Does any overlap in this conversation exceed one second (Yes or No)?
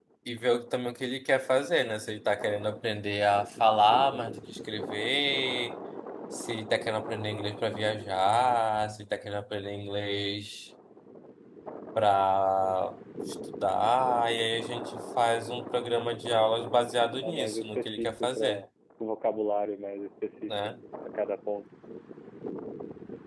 Yes